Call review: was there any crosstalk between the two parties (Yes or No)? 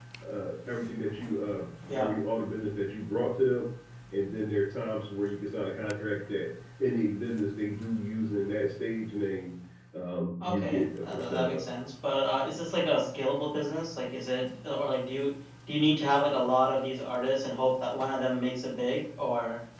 Yes